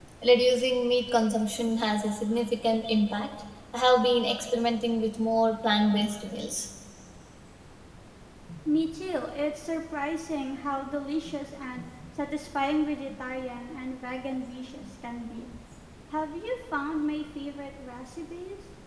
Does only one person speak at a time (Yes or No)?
Yes